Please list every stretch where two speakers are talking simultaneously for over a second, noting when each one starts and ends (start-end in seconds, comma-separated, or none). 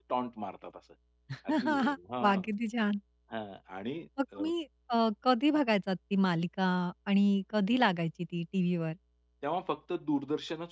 none